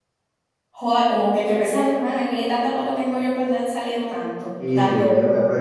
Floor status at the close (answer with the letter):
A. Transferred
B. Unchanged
A